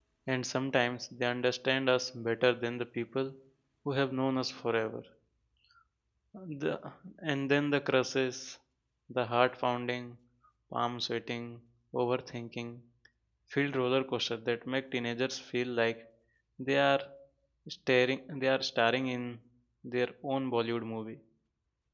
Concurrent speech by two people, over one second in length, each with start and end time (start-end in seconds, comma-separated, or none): none